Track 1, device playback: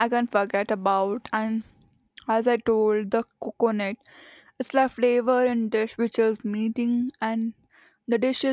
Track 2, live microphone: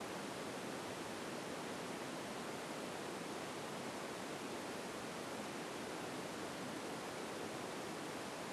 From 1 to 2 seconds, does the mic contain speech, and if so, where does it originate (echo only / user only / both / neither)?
neither